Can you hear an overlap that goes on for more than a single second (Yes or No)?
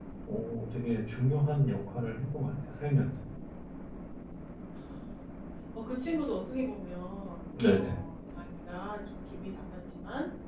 No